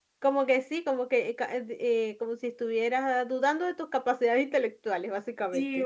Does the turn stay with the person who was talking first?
No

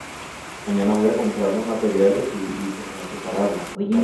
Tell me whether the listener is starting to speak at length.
Yes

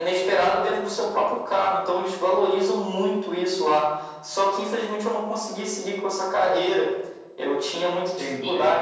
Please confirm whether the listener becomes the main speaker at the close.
No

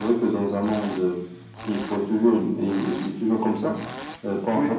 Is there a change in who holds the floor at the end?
No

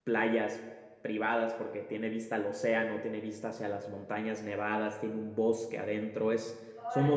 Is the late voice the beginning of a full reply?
Yes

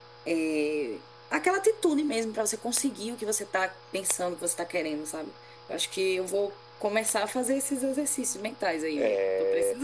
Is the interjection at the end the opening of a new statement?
Yes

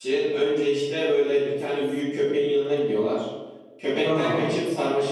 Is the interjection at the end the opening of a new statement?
No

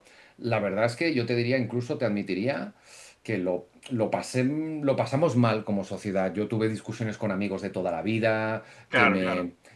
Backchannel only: Yes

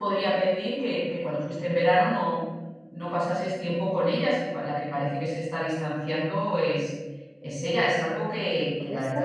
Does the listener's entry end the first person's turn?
Yes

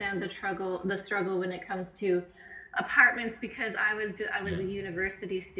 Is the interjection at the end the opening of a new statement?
No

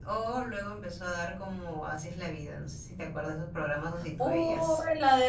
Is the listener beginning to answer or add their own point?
Yes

